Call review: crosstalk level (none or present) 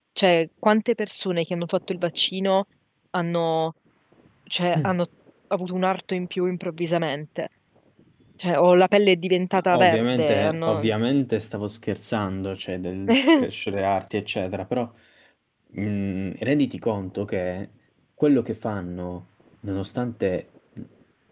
present